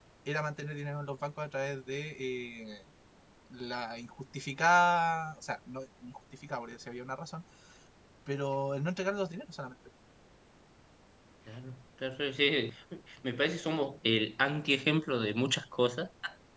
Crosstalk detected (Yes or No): No